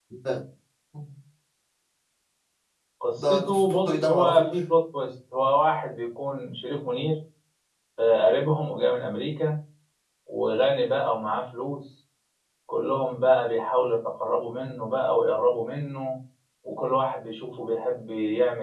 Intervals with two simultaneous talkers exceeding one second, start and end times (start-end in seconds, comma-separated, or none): 3.2-4.6